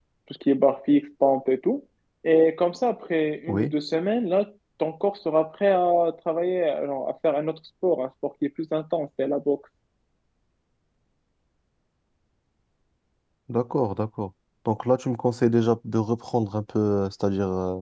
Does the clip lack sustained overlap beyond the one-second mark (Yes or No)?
Yes